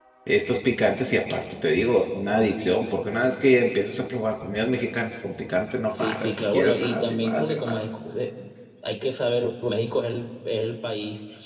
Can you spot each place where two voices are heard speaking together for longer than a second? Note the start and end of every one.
6.0-7.8

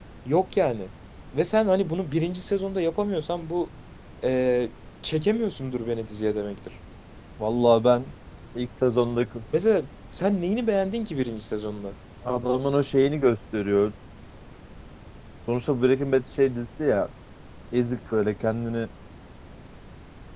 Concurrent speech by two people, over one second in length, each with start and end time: none

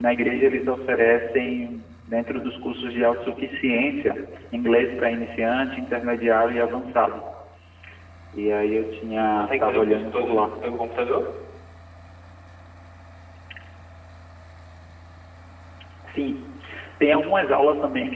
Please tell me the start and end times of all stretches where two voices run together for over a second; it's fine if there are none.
9.2-10.4

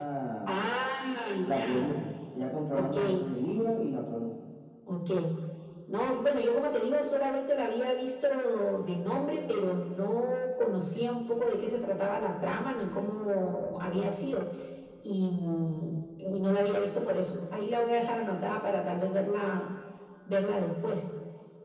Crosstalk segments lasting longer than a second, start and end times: none

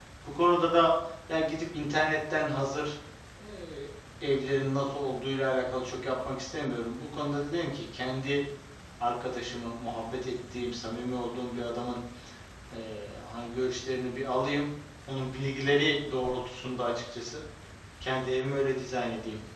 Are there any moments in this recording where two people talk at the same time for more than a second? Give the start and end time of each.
none

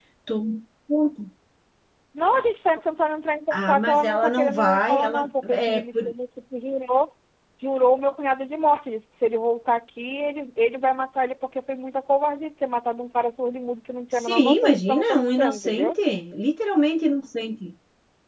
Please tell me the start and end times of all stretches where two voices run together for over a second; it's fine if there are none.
3.5-6.0, 14.1-15.9

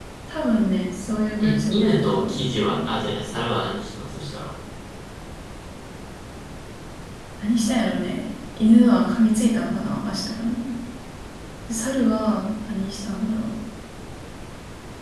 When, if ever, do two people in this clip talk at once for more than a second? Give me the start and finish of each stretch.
1.4-2.9

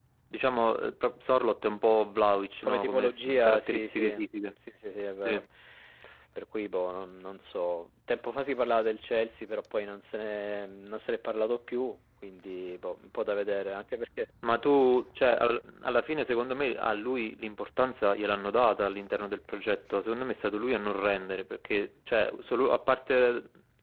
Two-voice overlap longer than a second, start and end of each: 2.6-4.1

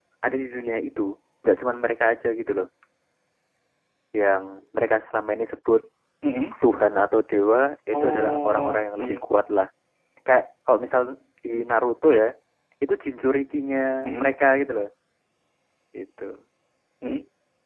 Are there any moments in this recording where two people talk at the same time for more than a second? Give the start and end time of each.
7.9-9.2

